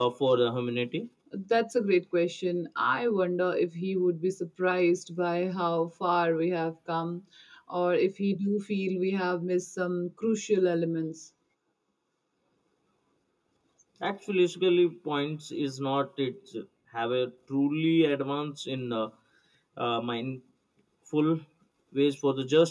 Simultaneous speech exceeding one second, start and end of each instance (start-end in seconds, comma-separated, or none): none